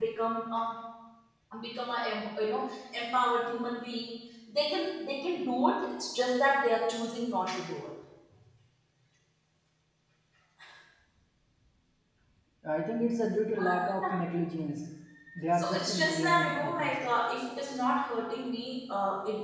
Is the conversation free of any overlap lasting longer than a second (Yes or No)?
No